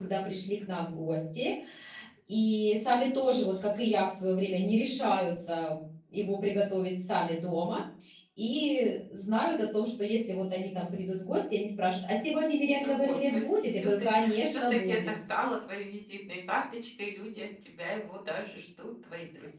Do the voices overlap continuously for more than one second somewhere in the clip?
Yes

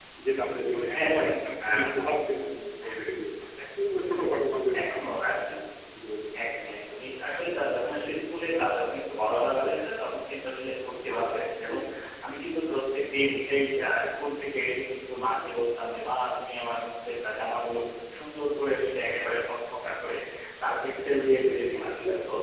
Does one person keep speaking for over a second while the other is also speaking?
Yes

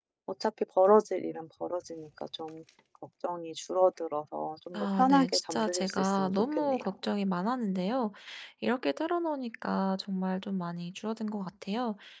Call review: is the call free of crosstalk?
No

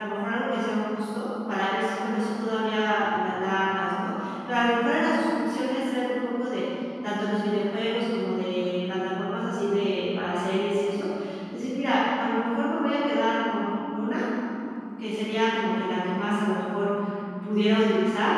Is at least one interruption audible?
No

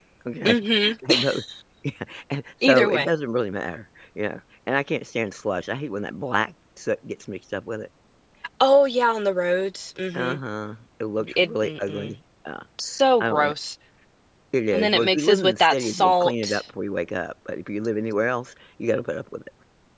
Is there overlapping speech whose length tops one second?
Yes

